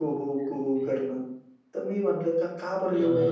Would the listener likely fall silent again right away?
Yes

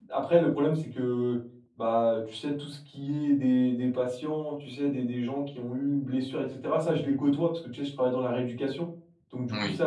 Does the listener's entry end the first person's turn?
No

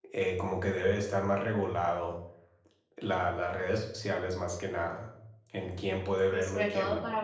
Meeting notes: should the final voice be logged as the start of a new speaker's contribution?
Yes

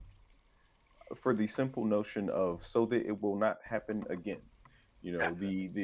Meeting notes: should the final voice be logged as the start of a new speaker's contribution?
No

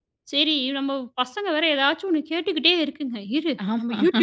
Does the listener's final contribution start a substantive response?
No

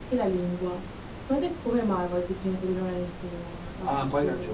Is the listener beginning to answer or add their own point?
Yes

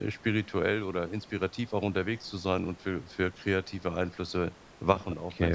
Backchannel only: No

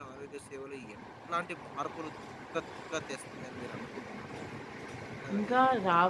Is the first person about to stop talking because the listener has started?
Yes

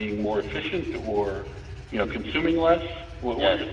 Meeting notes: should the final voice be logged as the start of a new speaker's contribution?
Yes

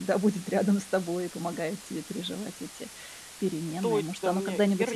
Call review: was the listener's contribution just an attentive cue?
No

